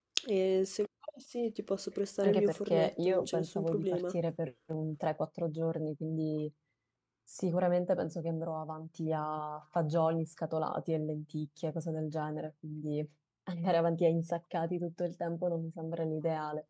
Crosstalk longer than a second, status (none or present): present